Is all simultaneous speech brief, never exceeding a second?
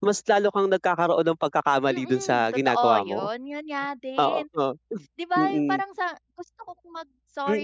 No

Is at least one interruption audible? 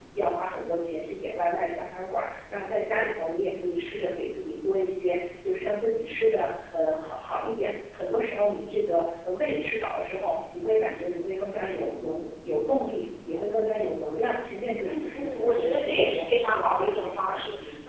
Yes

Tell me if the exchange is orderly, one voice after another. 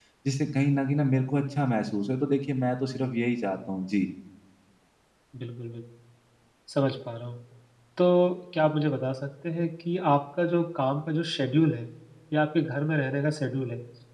Yes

